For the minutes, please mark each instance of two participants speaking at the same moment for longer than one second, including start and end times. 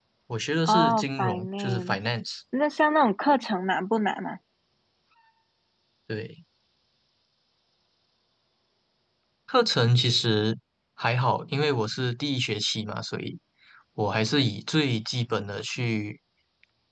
0.7-2.0

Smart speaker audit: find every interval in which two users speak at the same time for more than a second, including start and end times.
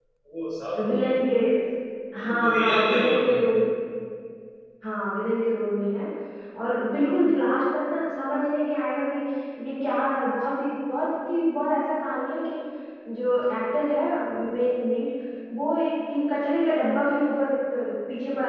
2.3-3.5

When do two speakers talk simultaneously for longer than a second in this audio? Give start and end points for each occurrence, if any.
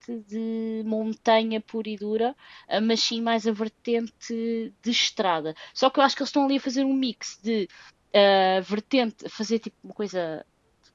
none

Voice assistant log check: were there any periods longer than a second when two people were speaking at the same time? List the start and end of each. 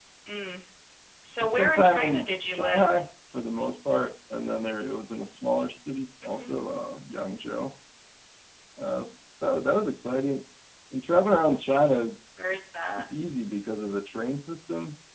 1.4-2.9

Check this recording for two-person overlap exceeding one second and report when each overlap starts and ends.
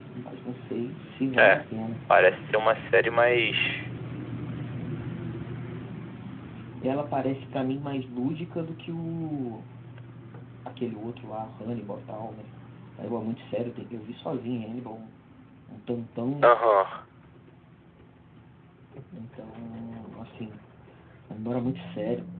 none

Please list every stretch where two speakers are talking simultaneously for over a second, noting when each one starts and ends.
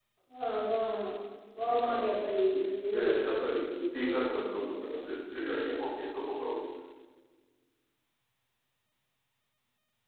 2.9-5.1

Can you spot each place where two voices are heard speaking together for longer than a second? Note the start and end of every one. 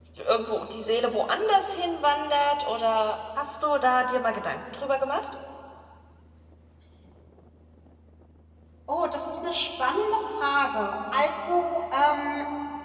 none

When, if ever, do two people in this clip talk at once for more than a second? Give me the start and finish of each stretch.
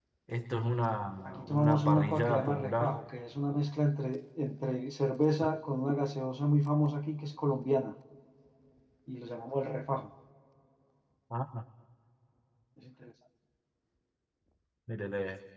1.4-3.0

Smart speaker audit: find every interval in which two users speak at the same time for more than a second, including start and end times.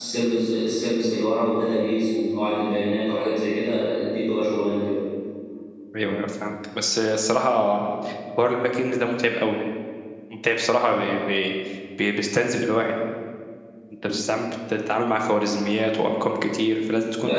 none

